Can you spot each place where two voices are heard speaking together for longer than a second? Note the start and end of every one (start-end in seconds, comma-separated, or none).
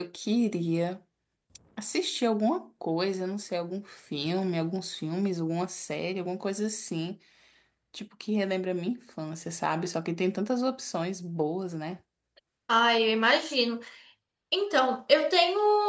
none